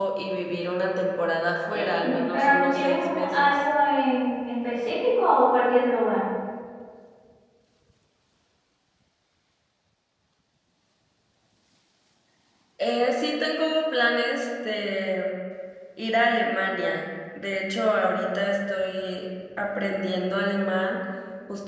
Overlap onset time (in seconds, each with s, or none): 1.7 s